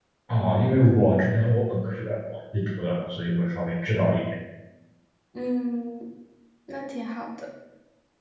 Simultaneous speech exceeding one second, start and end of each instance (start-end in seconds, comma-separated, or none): none